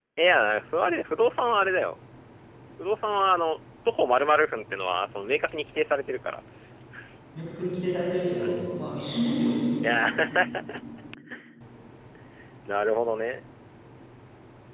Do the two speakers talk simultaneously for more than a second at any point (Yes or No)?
No